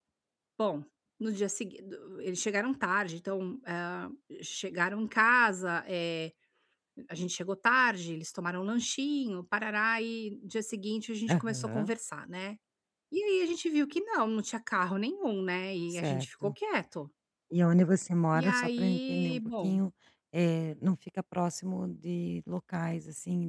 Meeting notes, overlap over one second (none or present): present